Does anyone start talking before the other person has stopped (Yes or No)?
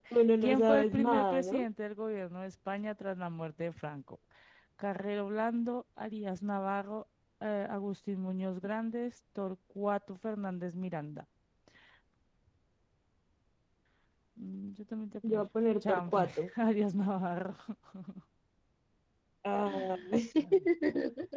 Yes